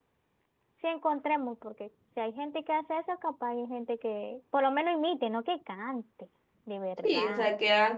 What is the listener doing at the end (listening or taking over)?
taking over